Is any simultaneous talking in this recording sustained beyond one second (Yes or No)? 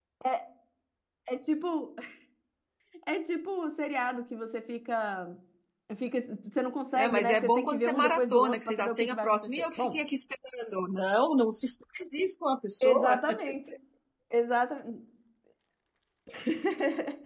Yes